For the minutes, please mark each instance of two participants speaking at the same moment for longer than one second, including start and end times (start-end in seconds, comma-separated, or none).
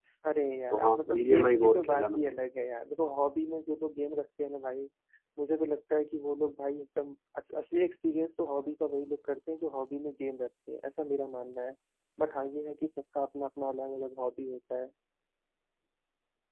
0.7-2.3